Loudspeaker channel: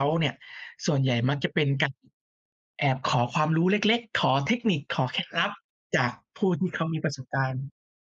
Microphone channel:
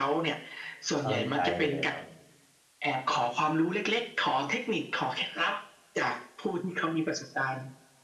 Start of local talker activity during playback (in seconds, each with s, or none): 0.9 s